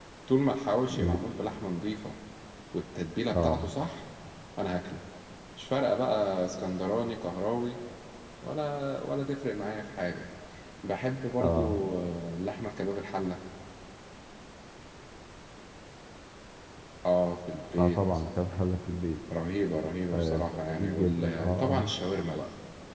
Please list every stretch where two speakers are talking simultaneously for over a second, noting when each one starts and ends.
20.1-21.9

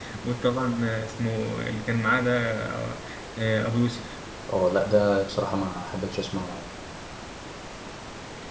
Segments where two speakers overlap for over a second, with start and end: none

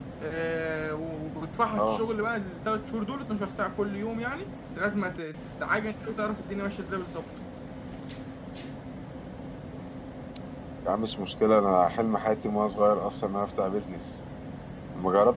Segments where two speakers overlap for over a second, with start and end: none

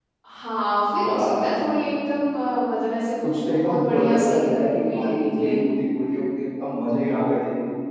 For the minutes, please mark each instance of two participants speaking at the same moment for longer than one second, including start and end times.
3.2-5.6

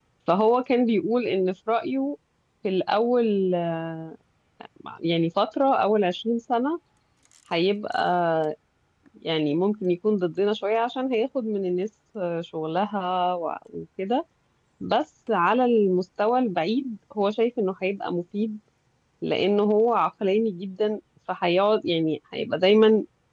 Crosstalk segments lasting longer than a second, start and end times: none

